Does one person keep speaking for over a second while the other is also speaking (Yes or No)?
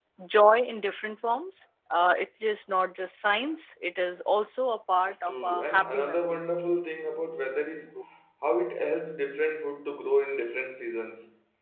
Yes